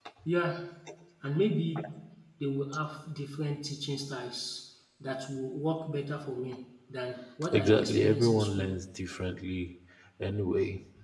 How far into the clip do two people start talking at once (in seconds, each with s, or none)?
7.4 s